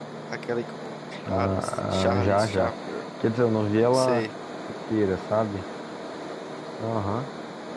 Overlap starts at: 1 s

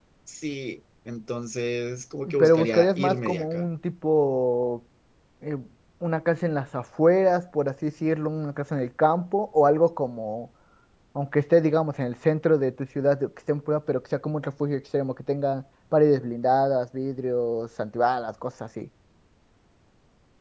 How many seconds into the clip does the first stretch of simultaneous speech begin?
2 s

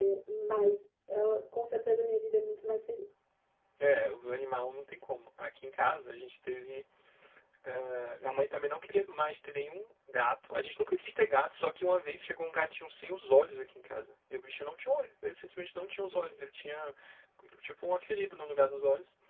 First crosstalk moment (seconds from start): none

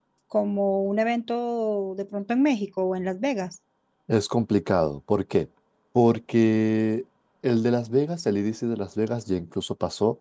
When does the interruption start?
none

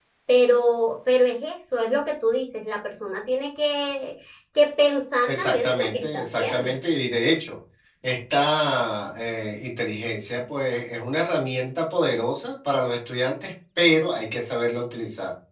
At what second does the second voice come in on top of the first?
5 s

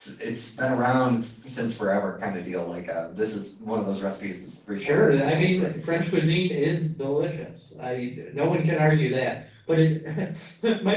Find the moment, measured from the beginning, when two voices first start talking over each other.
5 s

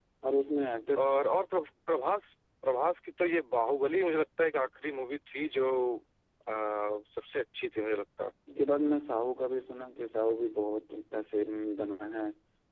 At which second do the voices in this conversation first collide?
none

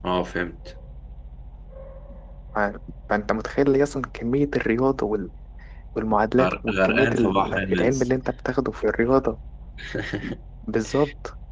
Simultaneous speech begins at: 6 s

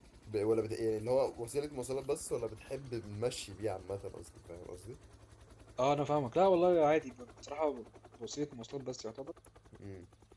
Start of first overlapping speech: none

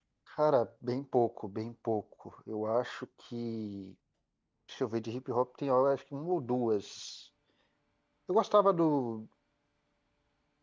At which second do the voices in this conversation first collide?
none

